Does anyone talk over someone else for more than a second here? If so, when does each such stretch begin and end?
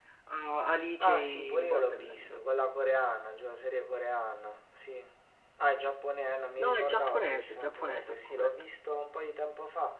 1.0-2.4, 6.6-8.5

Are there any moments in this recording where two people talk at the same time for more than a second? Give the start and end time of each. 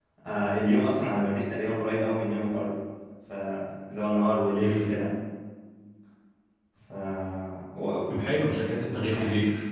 none

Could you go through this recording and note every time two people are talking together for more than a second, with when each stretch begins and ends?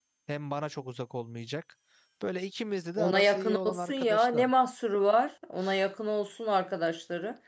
3.0-4.5

